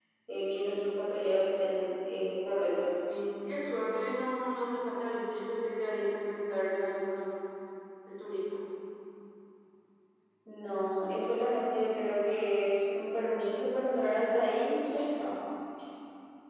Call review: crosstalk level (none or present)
none